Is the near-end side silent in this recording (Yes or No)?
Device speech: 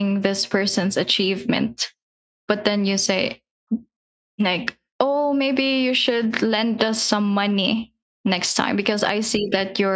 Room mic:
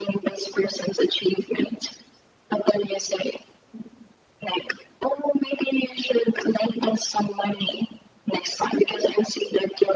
Yes